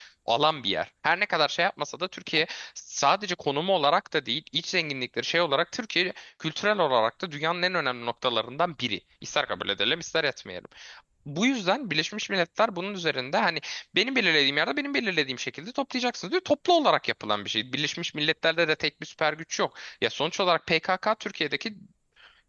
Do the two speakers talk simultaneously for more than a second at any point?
No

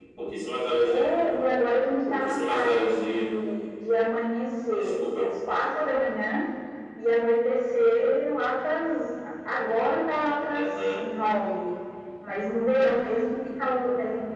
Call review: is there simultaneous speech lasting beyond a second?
Yes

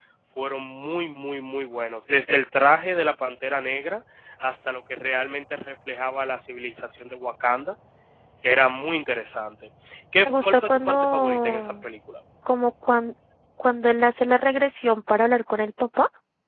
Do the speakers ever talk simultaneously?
Yes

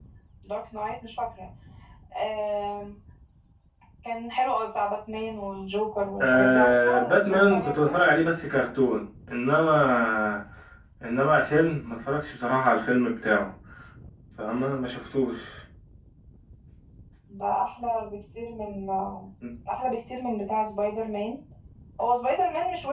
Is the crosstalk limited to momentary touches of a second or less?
No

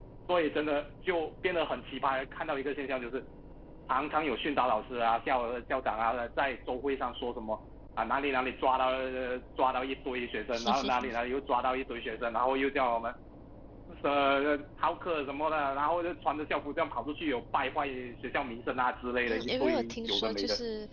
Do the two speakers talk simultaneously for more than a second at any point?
Yes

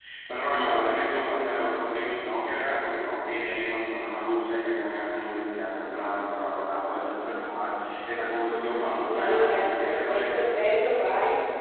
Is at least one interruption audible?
Yes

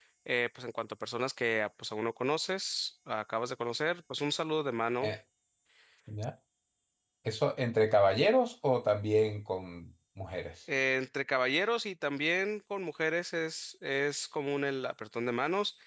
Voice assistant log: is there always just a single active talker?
Yes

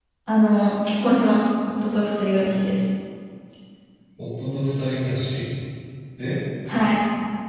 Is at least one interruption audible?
No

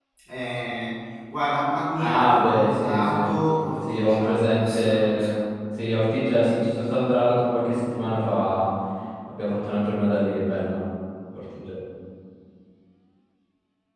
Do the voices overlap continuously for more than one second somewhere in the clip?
Yes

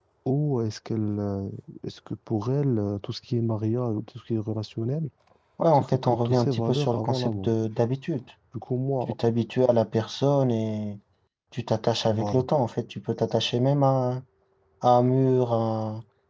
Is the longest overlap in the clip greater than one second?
Yes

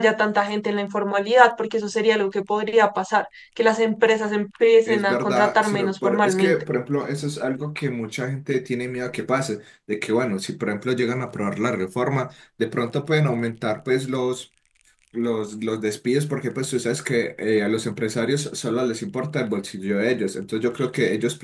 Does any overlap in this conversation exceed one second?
Yes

